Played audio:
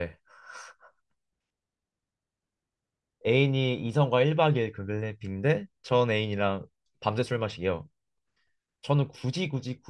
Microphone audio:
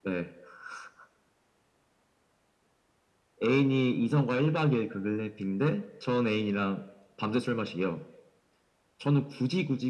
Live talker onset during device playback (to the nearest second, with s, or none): none